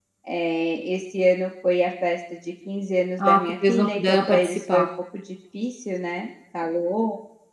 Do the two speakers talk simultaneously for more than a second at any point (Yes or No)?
Yes